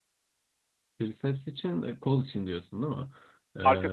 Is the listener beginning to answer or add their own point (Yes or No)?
No